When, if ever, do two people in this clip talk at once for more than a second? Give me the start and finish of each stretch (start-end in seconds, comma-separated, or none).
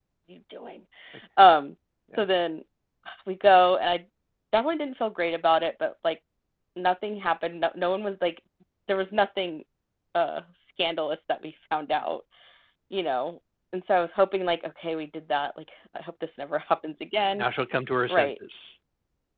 none